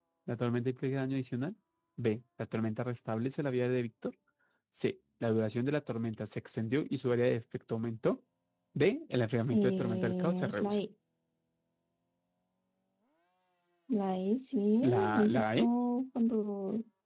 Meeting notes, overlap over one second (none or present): present